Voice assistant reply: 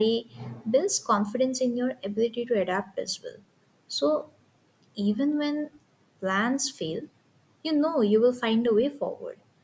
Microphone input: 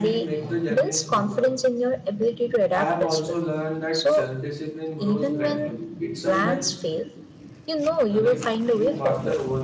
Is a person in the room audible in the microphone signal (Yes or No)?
Yes